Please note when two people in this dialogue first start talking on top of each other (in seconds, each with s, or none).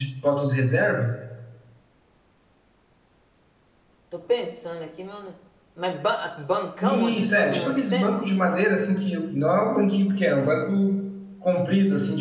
6.8 s